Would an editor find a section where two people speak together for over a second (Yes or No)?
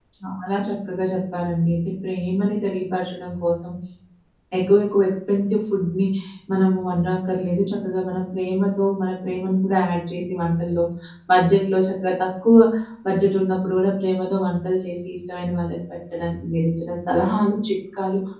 No